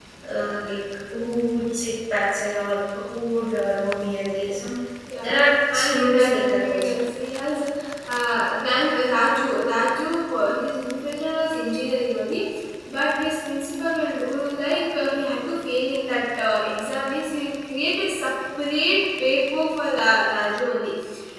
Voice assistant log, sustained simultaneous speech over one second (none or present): present